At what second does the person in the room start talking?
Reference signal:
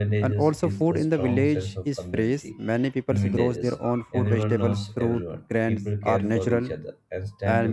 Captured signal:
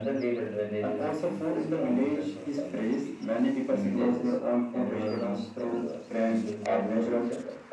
none

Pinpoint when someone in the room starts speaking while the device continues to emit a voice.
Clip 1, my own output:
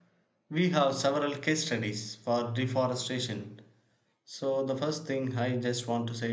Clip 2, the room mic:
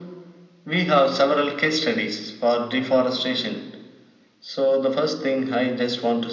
none

